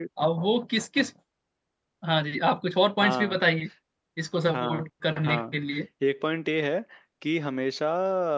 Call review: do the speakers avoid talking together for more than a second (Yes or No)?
Yes